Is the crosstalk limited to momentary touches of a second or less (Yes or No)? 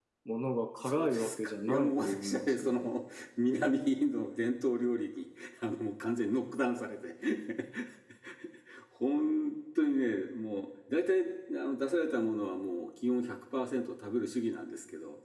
No